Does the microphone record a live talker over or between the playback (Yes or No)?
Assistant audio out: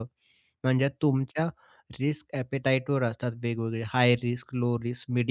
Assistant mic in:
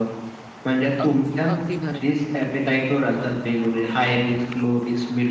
Yes